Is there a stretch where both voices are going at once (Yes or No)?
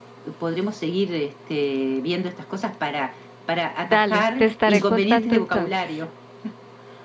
Yes